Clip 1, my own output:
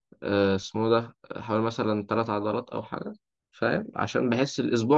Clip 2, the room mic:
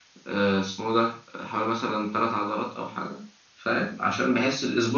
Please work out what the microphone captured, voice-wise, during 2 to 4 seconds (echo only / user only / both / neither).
echo only